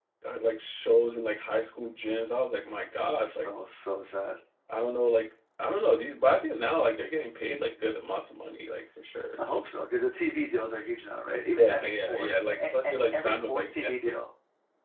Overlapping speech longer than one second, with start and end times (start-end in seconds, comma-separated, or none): 11.5-14.2